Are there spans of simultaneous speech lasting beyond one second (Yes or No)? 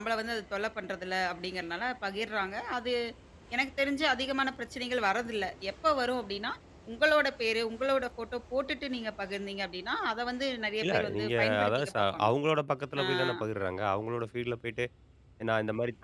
Yes